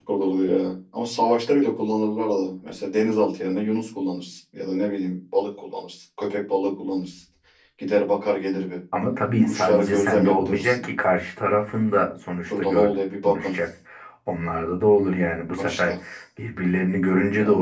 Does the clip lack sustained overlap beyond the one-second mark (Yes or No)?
No